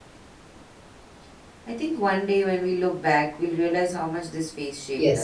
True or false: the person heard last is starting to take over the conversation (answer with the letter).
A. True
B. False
A